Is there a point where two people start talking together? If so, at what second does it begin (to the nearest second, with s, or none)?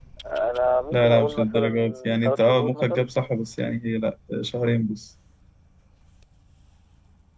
1 s